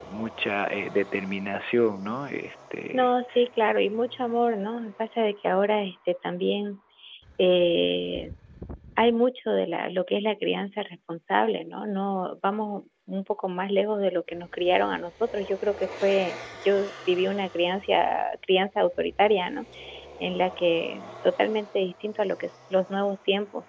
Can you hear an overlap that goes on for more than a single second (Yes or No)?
No